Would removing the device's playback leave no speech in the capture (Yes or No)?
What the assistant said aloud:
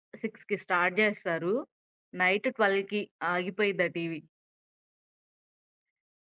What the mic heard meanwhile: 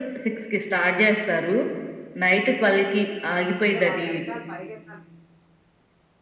No